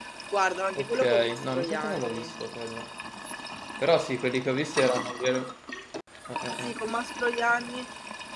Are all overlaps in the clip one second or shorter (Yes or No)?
No